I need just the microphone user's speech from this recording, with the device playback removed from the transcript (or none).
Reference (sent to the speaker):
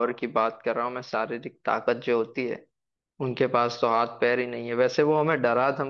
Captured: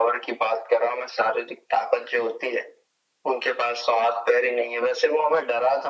none